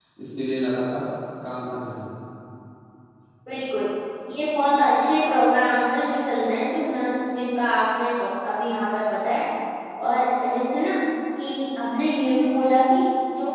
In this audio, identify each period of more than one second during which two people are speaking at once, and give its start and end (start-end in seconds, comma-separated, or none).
none